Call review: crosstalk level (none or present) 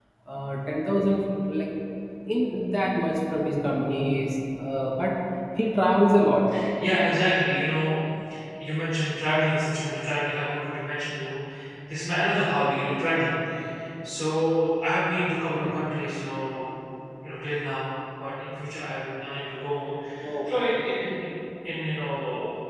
none